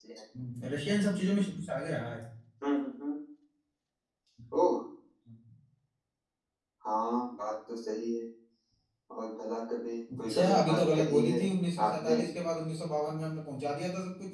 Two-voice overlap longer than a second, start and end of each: 10.2-11.4

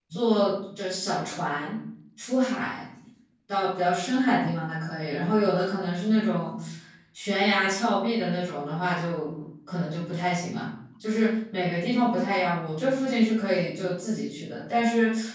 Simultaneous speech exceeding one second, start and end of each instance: none

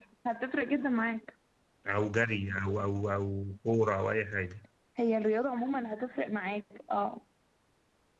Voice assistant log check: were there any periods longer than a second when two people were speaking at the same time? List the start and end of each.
none

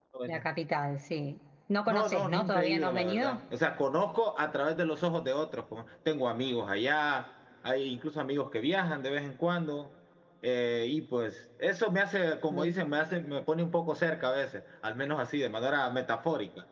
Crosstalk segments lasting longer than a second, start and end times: 1.9-3.4

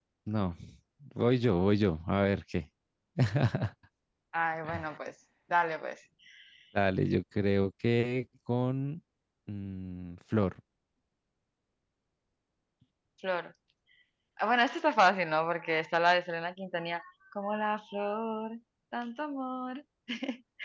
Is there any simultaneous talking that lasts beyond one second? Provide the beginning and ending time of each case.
none

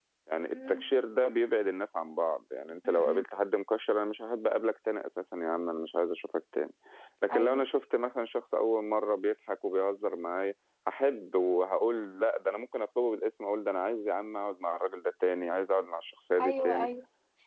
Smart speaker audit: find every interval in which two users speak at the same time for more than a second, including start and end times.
none

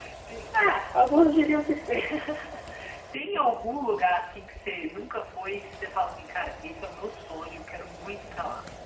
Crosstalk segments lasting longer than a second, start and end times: none

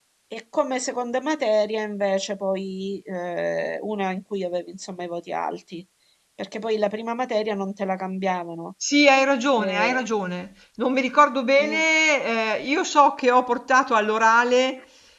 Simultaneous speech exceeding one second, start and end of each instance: none

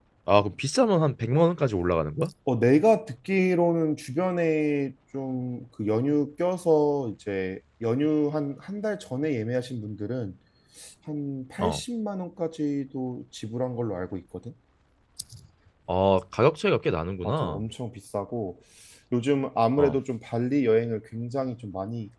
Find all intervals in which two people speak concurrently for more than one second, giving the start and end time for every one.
none

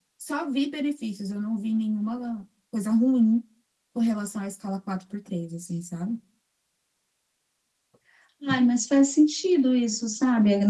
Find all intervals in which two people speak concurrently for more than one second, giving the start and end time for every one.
none

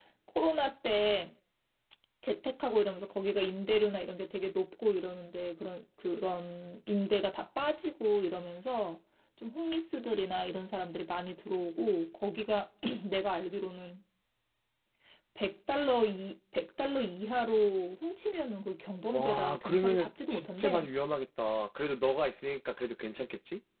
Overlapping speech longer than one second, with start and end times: 19.1-20.9

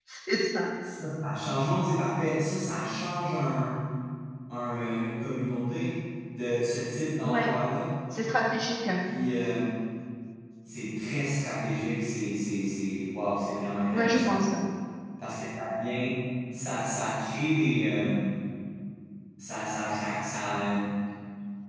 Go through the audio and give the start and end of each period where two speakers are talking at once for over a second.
none

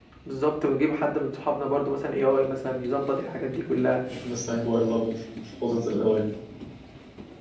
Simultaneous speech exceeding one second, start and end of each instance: none

